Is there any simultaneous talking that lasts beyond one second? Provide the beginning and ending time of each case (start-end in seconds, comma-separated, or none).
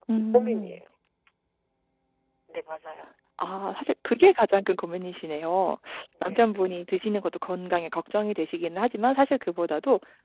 none